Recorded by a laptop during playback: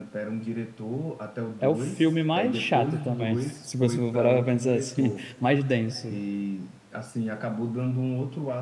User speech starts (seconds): 1.6 s

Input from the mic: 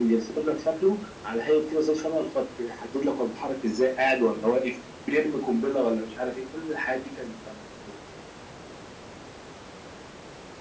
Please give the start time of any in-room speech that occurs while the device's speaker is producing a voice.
none

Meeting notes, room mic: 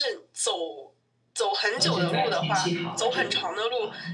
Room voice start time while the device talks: 1.7 s

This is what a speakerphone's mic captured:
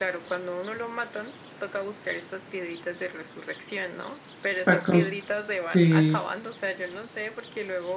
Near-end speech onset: 4.6 s

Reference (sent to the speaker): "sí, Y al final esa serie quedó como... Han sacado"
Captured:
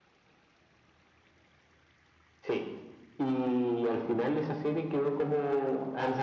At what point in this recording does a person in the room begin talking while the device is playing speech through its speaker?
none

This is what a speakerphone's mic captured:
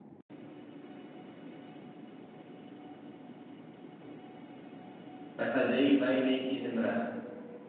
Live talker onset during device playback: 5.3 s

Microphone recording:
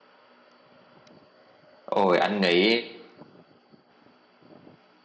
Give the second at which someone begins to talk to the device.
1.9 s

